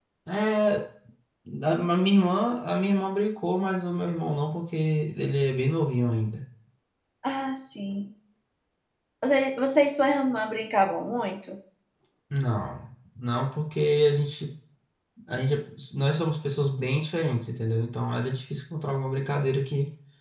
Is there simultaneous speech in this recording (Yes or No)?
No